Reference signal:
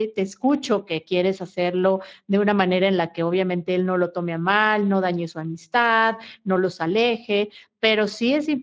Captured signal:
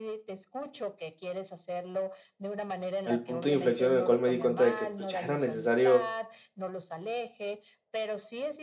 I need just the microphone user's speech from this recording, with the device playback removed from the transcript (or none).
el punto de inflexión en el cual me di cuenta de que, pues, ya era necesario,